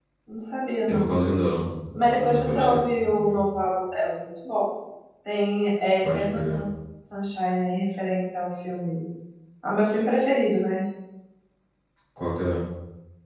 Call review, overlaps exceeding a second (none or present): present